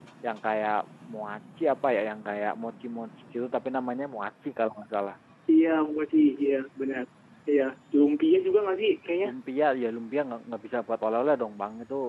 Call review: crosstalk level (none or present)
none